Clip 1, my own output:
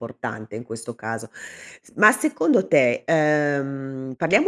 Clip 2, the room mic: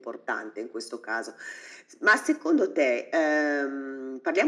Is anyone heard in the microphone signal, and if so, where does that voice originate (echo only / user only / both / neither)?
echo only